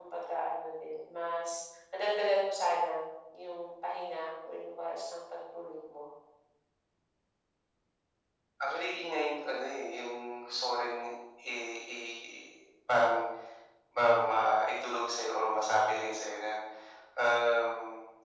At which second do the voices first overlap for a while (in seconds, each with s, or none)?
none